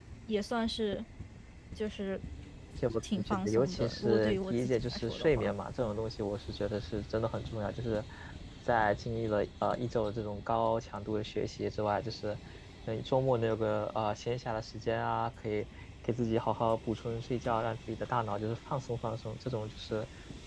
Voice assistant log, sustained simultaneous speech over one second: present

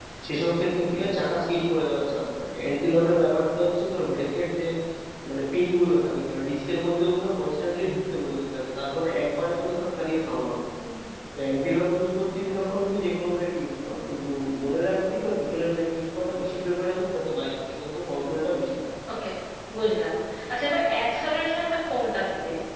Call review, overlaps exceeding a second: none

